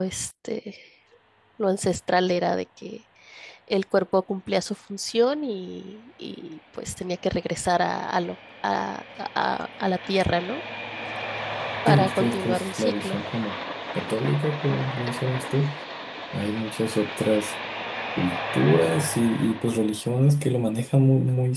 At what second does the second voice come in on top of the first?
11.9 s

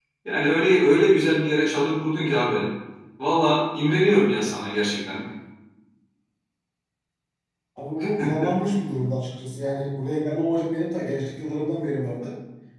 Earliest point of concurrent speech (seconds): none

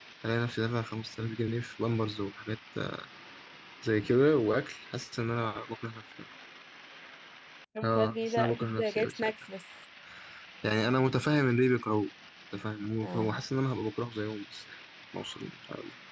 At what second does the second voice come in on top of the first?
7.8 s

